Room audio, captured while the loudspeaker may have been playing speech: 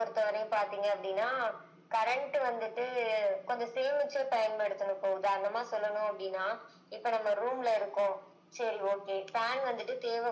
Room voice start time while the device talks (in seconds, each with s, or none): none